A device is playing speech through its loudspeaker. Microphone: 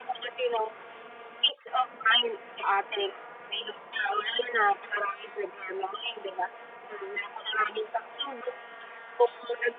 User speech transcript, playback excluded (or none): none